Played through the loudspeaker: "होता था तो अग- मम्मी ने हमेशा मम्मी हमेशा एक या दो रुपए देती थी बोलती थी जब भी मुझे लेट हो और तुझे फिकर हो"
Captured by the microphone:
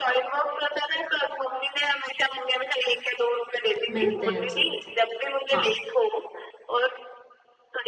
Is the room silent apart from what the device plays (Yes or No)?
No